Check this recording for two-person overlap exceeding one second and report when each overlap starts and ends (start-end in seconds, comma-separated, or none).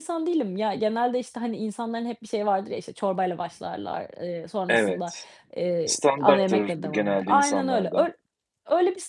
5.8-8.1